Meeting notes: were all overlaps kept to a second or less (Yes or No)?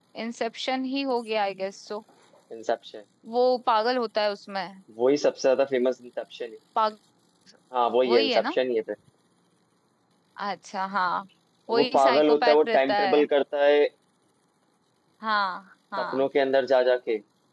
No